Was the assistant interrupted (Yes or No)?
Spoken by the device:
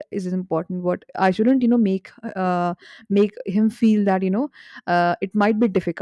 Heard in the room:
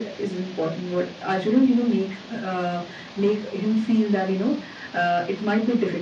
No